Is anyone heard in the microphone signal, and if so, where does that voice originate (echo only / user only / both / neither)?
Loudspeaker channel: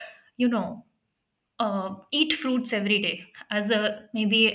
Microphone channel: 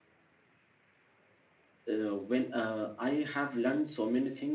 user only